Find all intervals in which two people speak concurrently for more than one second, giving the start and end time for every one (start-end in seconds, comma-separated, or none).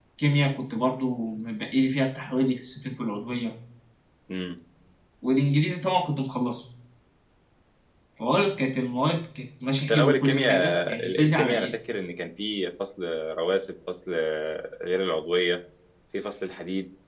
9.9-11.7